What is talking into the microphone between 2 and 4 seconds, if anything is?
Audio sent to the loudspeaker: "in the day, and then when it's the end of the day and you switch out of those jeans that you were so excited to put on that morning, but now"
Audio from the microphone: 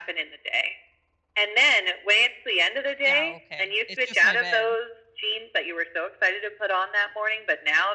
both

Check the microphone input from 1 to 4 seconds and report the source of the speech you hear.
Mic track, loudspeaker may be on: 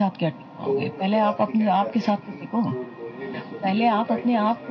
both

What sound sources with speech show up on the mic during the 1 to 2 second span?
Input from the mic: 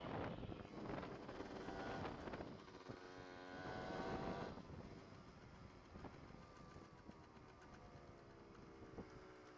neither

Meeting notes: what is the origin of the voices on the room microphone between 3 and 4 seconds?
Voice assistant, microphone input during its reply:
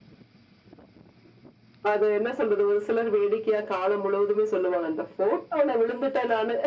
echo only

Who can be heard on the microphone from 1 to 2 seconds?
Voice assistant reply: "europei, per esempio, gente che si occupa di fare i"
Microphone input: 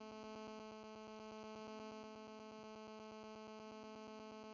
neither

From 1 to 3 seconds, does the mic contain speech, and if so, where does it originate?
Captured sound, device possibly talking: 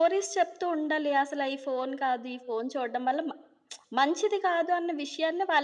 echo only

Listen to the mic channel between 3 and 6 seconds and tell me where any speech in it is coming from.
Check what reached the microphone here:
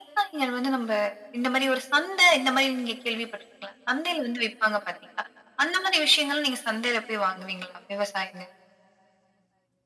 echo only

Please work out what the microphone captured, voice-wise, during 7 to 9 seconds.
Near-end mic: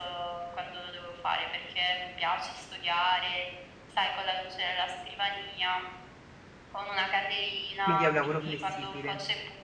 both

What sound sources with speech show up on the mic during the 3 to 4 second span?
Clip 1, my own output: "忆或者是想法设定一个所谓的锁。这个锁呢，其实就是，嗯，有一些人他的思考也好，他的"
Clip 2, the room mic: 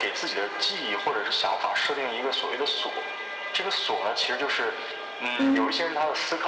echo only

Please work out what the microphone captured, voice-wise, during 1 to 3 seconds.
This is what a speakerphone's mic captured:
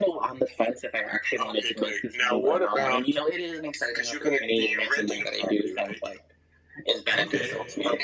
echo only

